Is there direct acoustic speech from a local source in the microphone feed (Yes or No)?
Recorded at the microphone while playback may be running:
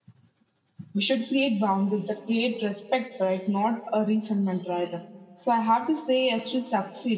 Yes